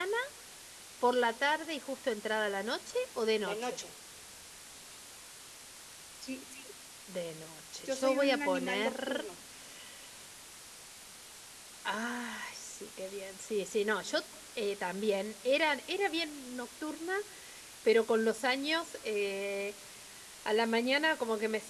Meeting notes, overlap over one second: present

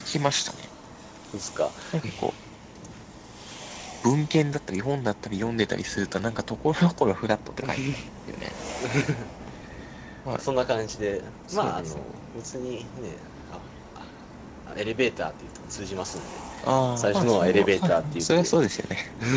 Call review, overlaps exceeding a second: present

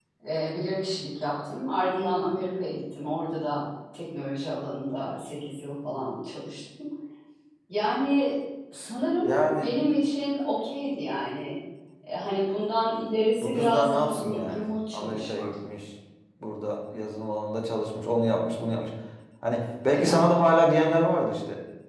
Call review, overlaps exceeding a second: present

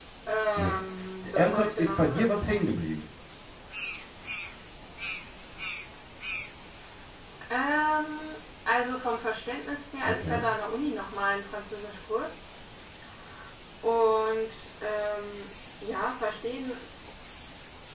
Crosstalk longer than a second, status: present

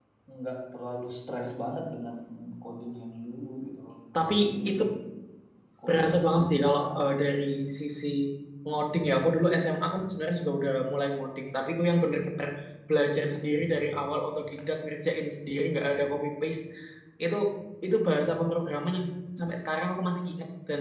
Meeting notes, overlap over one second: present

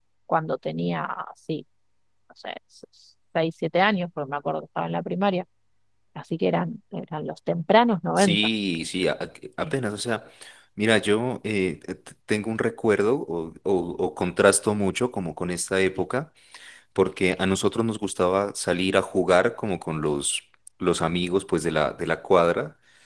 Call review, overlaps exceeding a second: none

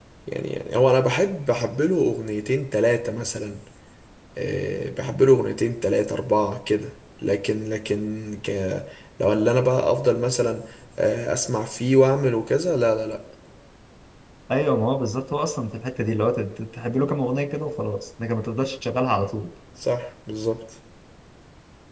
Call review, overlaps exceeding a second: none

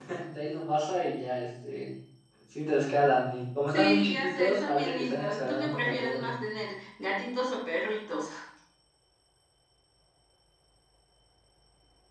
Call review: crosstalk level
present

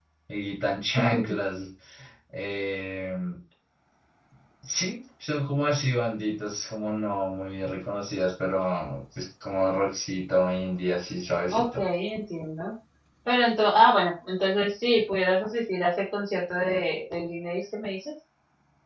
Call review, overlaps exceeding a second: none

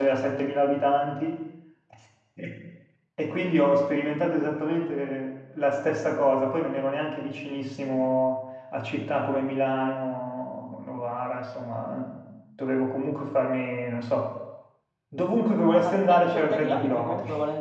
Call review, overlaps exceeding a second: present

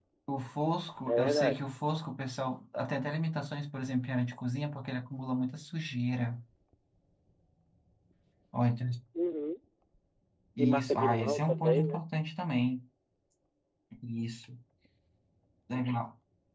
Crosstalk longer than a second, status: present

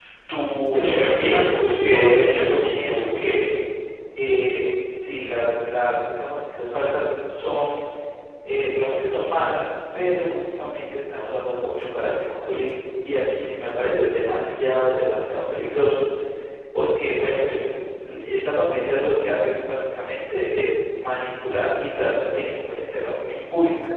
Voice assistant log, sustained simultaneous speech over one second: present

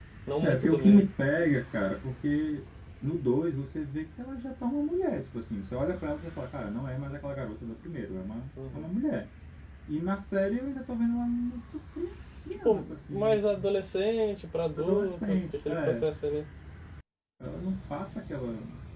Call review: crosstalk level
present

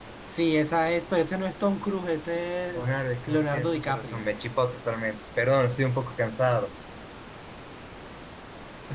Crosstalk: present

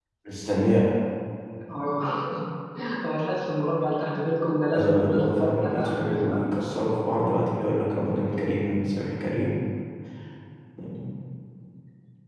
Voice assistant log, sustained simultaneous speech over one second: present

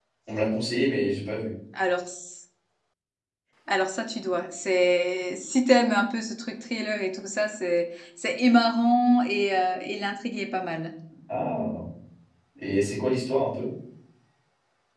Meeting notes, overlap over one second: none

